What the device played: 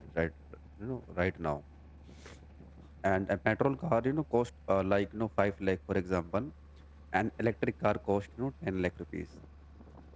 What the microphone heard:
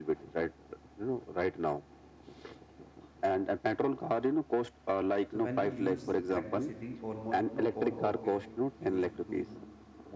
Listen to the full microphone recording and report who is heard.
both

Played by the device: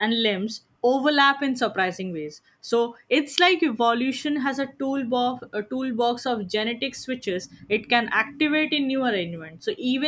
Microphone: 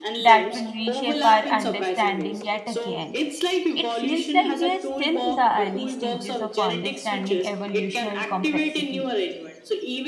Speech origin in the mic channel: both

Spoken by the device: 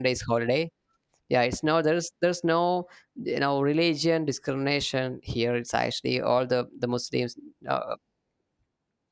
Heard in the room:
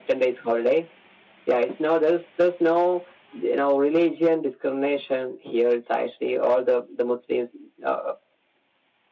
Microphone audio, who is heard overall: echo only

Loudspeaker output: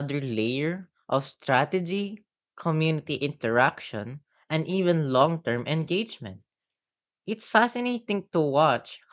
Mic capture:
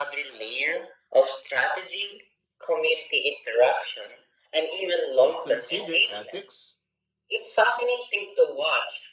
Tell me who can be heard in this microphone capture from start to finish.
both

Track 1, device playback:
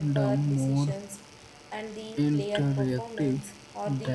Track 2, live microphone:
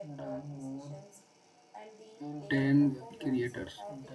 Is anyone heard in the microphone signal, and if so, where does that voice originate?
both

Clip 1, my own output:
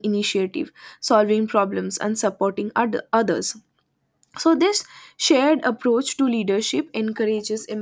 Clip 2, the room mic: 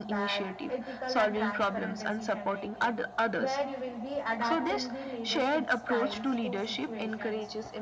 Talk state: both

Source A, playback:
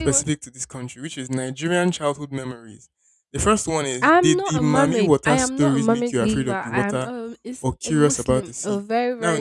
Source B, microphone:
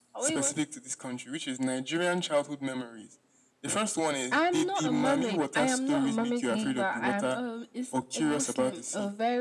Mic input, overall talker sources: echo only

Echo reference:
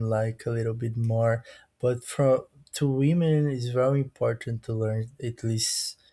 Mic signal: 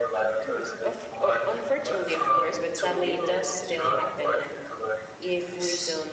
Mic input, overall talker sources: both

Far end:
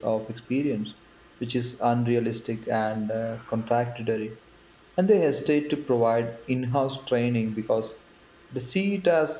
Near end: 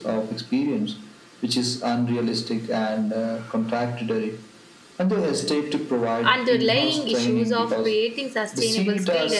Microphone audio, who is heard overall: both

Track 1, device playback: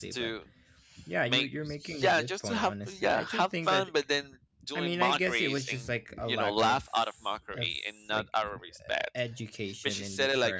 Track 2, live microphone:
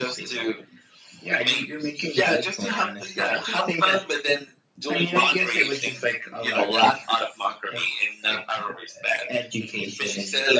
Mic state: echo only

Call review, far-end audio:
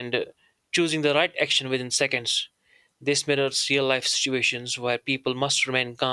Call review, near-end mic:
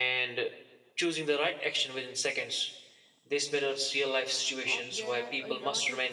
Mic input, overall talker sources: both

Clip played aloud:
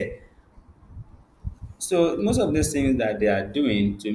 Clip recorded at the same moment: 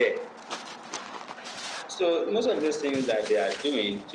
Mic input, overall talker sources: echo only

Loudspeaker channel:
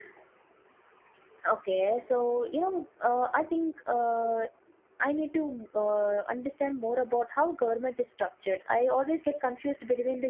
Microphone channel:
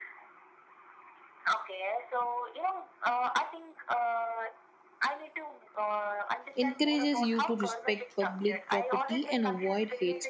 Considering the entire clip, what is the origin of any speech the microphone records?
both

